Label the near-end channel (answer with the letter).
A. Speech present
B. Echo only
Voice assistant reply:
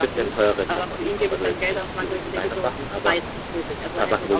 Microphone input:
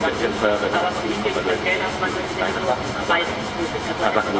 B